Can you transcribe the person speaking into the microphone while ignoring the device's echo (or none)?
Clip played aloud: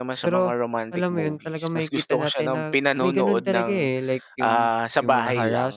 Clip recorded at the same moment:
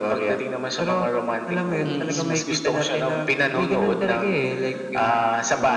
Mm.